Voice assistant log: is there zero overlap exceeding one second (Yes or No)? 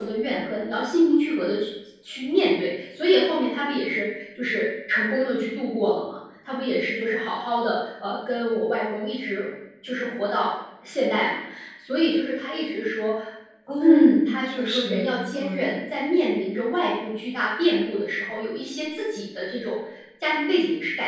No